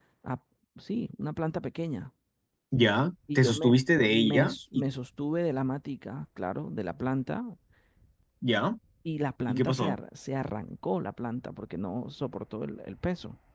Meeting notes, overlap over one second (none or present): present